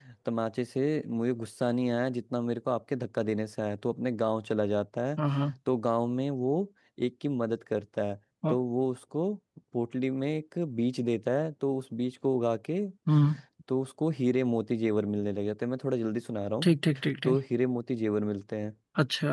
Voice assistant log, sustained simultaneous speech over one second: none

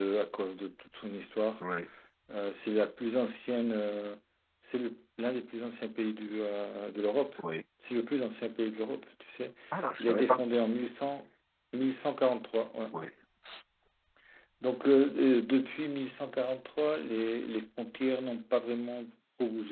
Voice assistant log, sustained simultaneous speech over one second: none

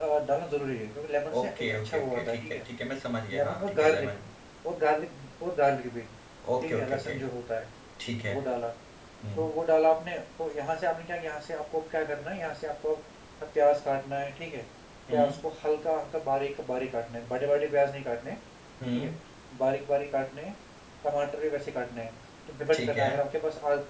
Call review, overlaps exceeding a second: present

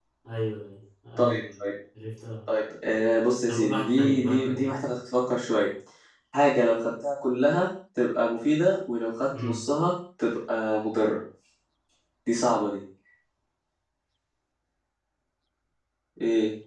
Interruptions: present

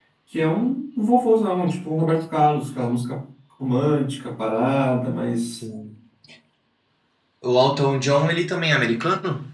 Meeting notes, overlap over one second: none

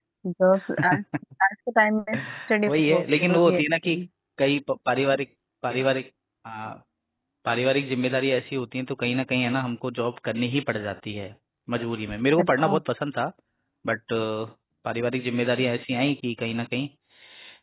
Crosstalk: present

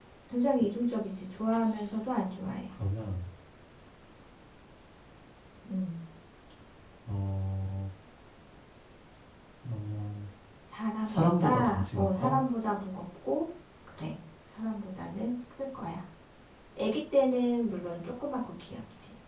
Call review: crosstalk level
present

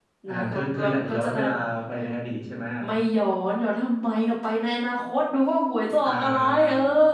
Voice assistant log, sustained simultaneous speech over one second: present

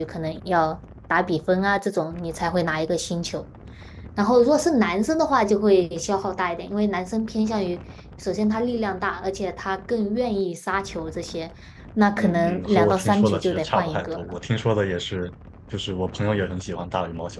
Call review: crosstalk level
present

